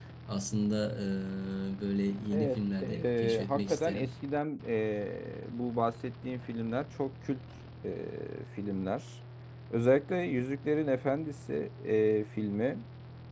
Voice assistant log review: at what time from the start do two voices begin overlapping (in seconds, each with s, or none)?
2.3 s